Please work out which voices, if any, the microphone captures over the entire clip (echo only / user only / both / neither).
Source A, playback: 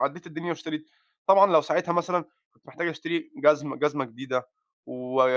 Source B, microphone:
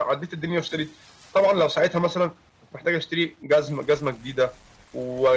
echo only